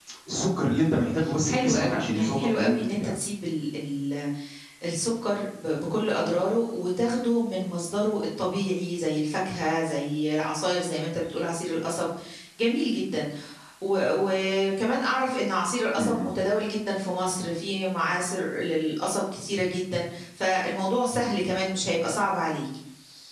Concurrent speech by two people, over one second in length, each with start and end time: 1.4-3.1

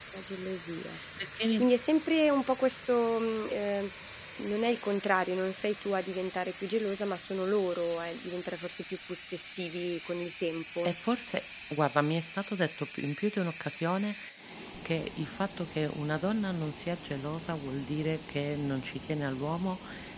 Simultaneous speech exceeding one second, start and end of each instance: none

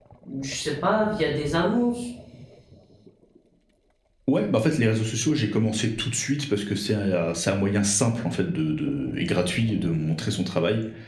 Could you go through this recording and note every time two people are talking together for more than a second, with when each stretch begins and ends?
none

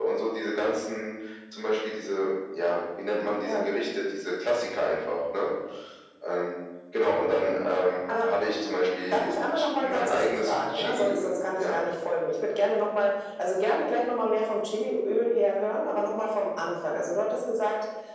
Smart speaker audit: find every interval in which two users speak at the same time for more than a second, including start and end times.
9.1-11.8

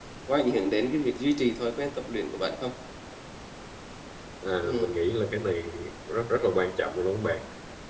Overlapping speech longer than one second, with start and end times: none

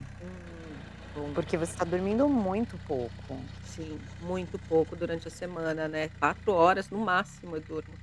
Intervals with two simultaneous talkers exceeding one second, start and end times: none

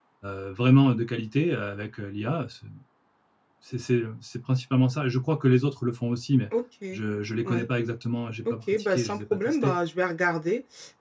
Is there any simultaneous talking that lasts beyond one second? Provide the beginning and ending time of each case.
8.5-9.7

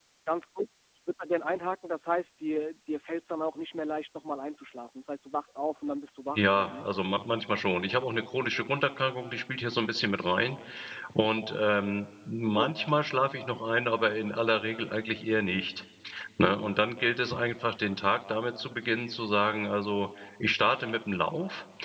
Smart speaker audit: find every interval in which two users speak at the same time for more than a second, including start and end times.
none

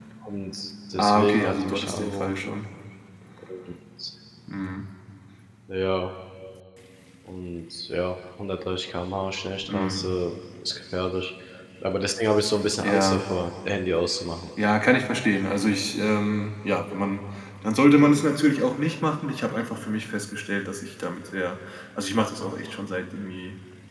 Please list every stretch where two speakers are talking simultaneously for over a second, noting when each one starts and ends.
1.0-2.5

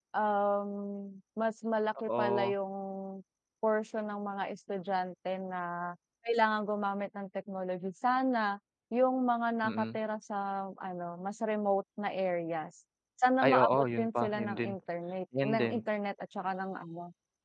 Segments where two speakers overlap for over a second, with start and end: 13.4-14.8

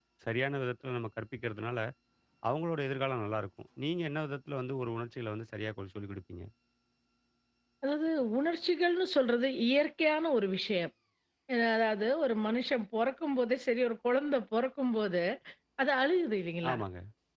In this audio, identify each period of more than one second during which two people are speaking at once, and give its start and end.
none

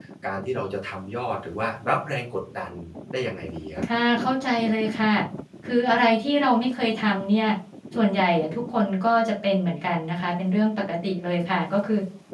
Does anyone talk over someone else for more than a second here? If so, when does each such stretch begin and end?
none

